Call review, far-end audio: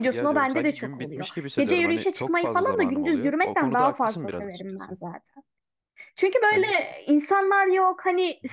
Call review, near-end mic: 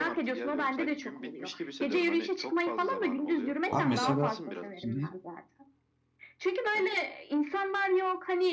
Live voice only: Abi mesela Hı hı.

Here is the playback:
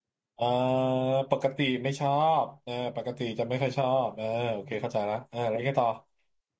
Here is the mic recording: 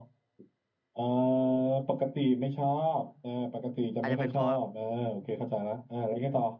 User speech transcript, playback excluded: อาจจะเป็นเพราะแบบ

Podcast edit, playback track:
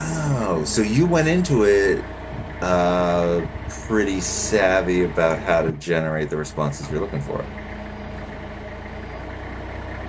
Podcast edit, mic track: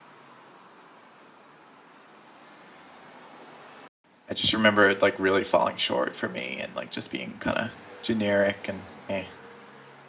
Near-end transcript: I just remember it like really falling short for me and like just being kind of generic and eh.

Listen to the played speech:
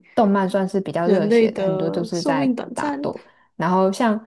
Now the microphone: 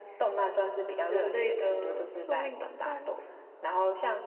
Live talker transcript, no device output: none

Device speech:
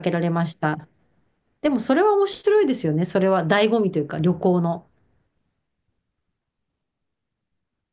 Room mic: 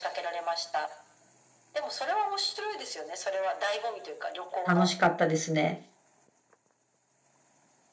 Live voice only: 楽しかったですね。

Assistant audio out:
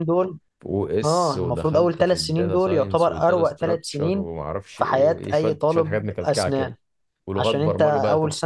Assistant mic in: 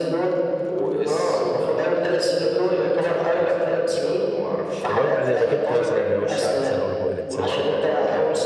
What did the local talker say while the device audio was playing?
اللي هو بيبقى زي ماكيت مثلا لوش الانسان او لبوق الانسان وكده

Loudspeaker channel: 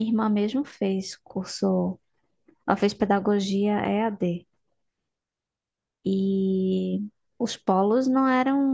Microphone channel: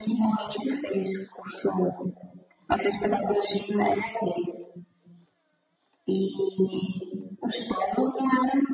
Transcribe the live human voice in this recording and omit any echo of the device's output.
none

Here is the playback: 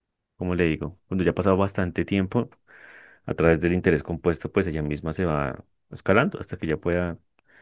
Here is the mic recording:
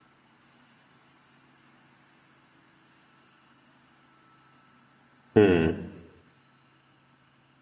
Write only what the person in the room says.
Mm,

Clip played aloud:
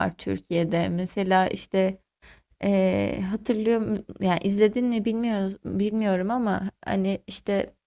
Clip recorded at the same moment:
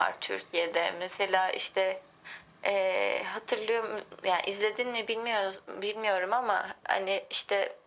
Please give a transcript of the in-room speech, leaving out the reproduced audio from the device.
none

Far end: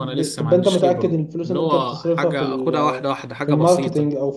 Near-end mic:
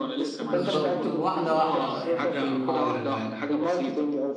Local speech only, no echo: بالظبط واحدة واحدة بقى يعني ايه نحاول آه،

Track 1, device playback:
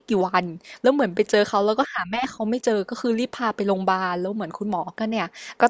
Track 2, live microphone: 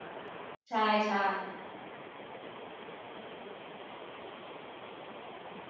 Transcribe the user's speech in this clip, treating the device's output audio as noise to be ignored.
ใช่ใช่

